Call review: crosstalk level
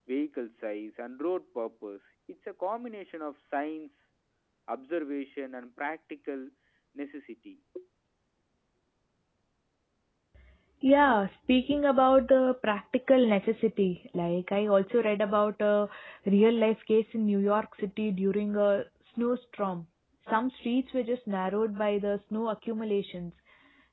none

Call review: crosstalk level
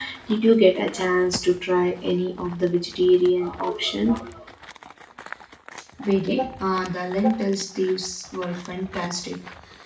none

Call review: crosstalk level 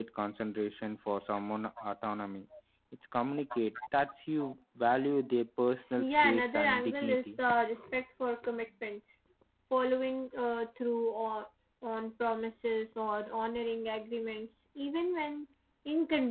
present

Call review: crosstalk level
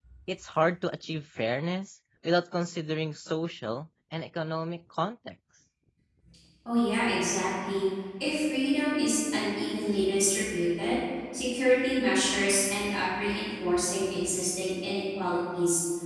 none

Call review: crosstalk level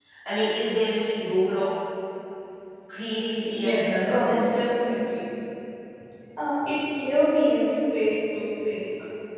present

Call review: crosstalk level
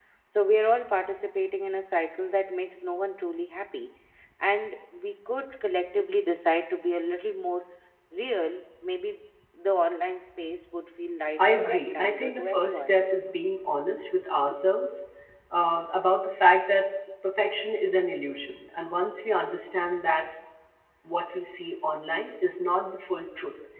present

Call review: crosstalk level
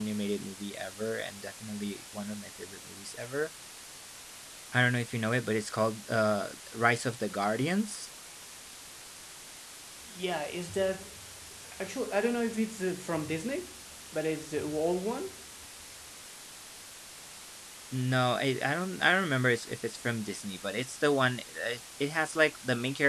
none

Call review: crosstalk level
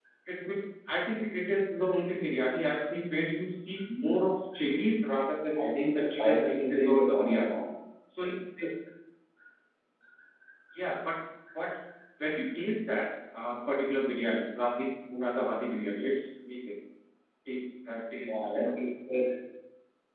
present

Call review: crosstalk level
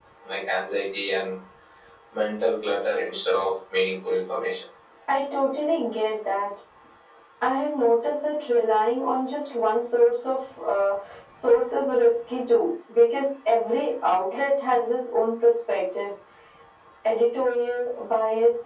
none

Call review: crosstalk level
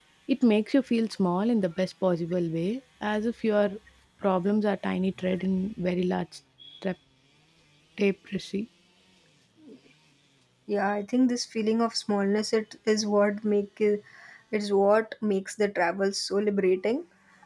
none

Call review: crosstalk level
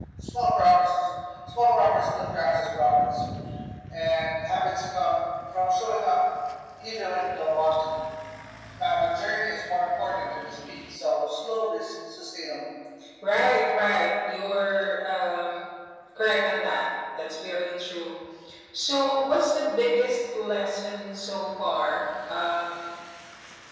none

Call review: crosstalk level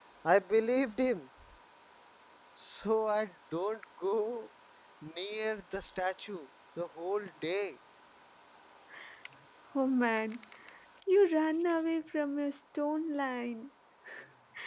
none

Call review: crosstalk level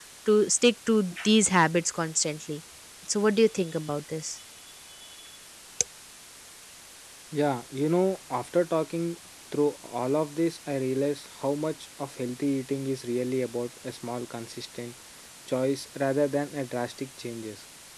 none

